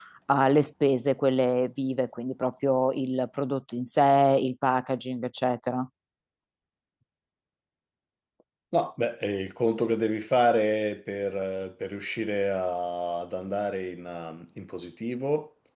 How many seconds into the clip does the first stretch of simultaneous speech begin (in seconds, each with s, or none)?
none